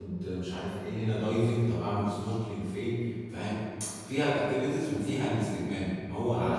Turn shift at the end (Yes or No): No